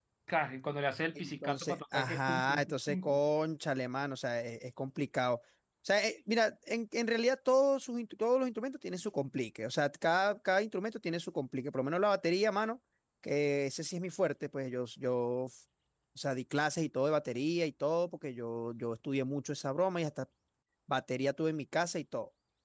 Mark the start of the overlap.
1.2 s

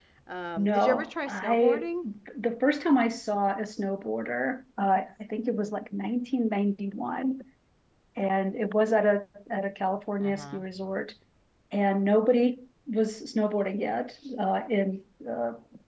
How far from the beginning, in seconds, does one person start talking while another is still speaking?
0.6 s

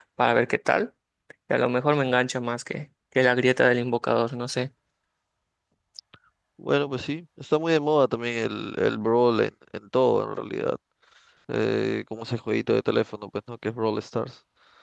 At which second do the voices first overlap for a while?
none

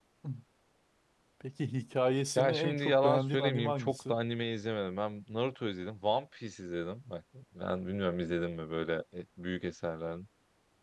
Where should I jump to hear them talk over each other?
2.4 s

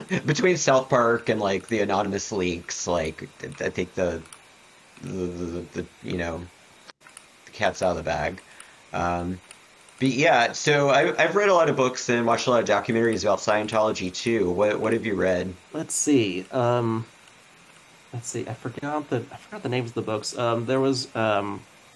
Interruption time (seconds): none

